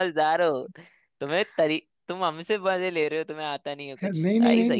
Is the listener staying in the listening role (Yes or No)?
No